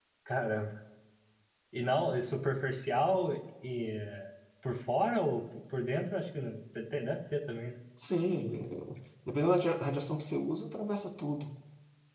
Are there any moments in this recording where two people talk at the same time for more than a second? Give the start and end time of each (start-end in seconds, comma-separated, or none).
none